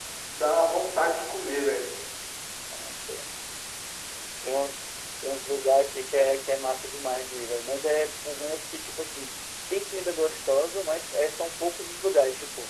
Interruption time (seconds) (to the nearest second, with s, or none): none